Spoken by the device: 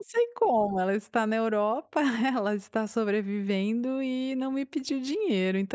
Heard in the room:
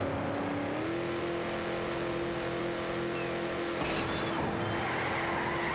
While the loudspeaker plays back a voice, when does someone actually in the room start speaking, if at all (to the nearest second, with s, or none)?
none